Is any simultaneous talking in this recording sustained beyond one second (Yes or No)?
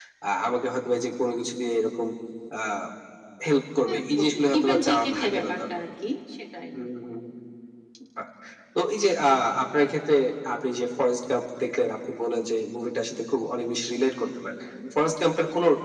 Yes